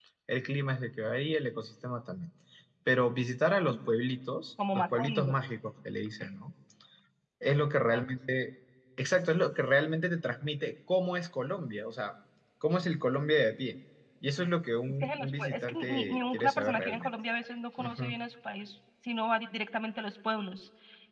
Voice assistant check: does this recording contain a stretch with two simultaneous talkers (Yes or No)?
Yes